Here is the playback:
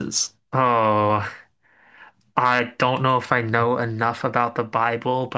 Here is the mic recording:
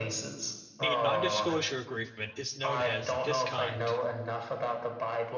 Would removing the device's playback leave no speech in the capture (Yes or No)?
No